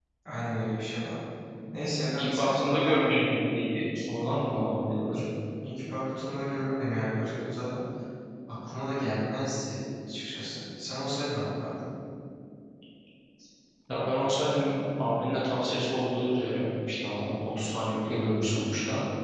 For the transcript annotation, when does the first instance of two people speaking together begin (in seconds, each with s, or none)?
2.2 s